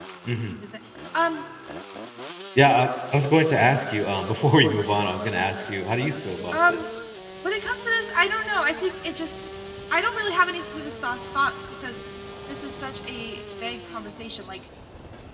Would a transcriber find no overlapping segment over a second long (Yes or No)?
Yes